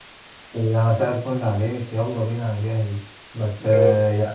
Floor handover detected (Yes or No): No